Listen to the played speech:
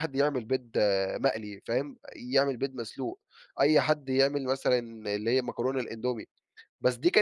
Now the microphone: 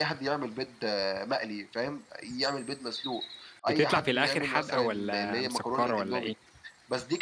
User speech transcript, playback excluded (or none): بتطلع في الآخر حادقة والَّا مسكرة والَّا إيه؟